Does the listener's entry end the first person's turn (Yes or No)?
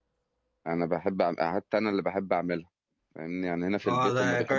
Yes